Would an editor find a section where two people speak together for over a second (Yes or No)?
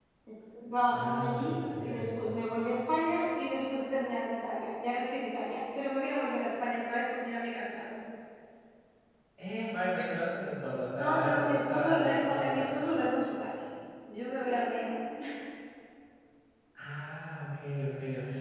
Yes